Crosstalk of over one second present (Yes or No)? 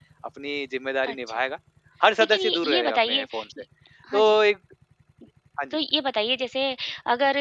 Yes